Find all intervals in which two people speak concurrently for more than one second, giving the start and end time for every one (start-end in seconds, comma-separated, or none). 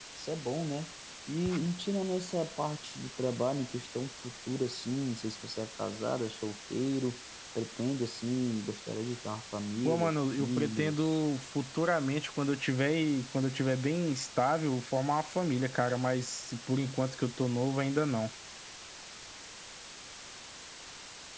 9.8-11.2